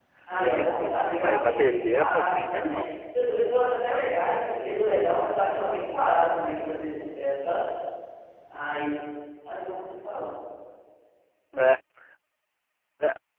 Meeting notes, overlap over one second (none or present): present